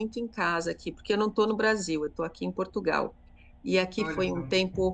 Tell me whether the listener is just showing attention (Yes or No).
Yes